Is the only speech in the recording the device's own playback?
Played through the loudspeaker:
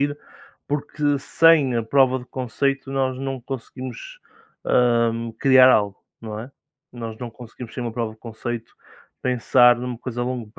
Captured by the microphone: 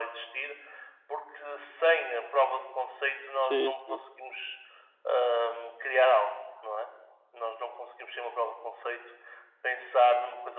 No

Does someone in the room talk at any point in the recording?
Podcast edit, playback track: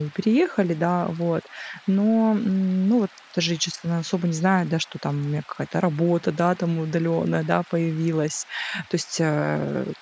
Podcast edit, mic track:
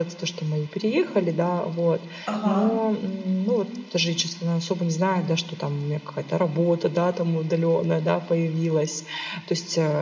Yes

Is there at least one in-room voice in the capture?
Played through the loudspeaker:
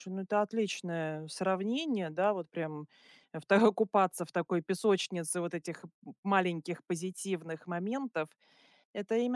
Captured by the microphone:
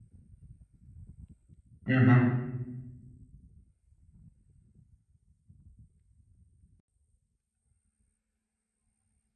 Yes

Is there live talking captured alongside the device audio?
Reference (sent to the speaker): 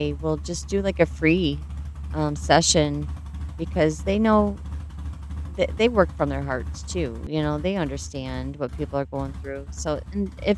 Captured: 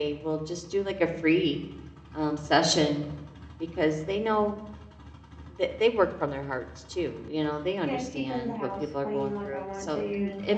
Yes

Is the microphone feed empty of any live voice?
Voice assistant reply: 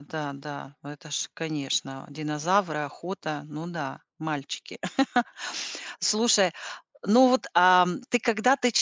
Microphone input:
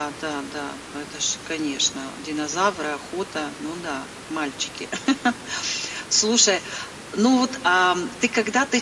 Yes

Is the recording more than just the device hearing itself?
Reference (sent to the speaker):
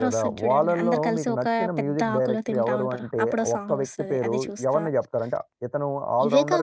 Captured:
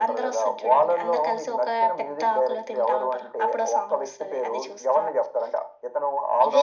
No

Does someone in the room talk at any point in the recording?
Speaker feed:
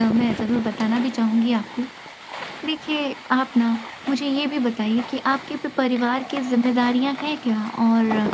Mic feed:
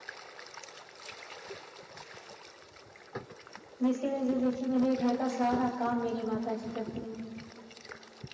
Yes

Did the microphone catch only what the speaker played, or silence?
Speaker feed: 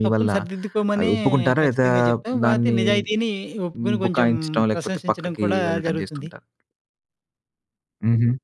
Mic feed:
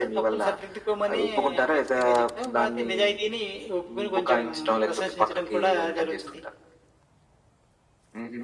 Yes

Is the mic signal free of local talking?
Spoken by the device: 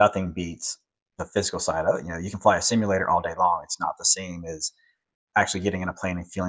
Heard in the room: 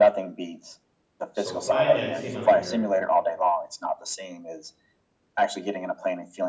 No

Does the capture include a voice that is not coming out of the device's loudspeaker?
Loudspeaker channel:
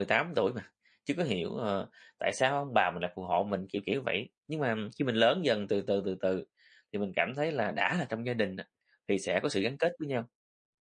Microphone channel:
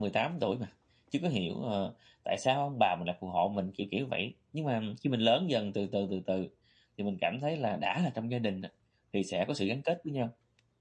No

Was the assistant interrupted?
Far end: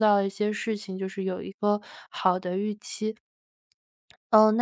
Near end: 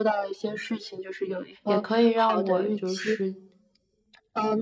Yes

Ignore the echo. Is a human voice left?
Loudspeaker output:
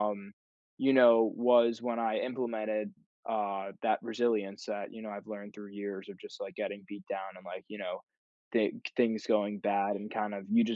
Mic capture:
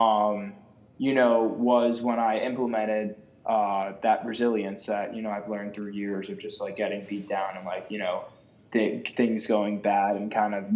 No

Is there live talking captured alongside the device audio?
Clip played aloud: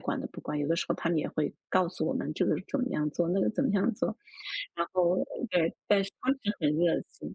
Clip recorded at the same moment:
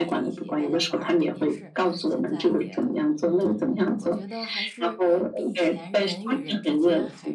Yes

